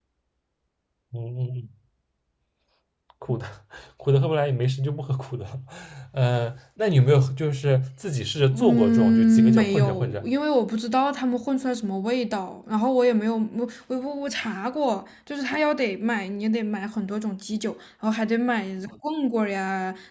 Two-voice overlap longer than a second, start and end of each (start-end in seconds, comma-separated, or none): 8.5-10.3